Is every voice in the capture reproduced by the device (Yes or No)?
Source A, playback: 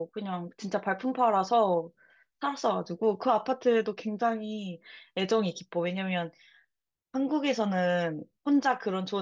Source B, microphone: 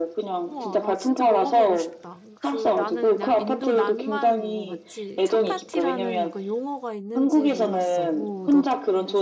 No